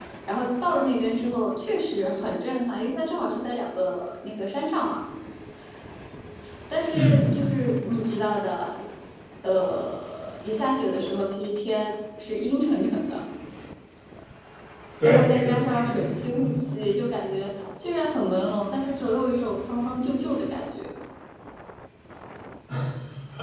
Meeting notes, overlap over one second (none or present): present